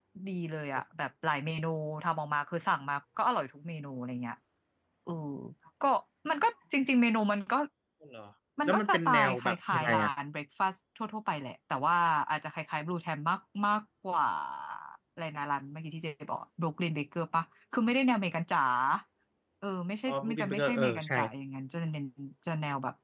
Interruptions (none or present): present